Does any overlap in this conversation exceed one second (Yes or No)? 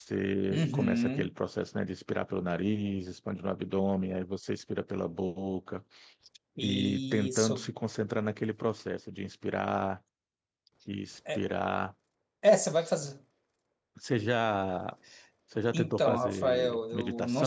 Yes